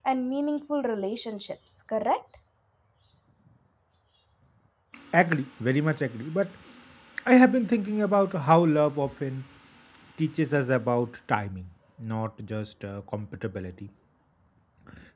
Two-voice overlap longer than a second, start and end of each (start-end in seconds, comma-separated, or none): none